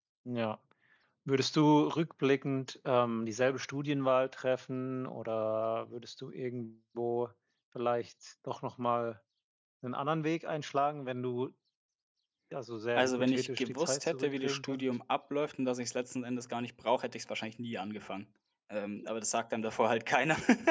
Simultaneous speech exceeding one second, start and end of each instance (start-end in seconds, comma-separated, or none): 13.0-14.8